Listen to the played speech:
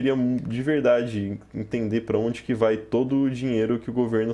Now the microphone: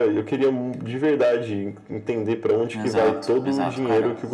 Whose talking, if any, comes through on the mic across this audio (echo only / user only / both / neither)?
both